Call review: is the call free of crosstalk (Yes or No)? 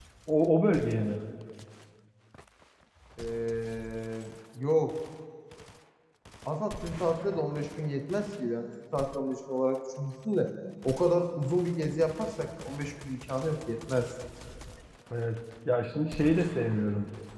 Yes